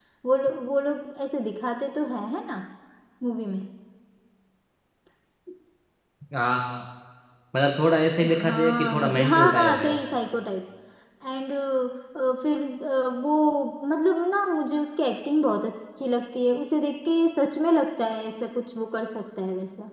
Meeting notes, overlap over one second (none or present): present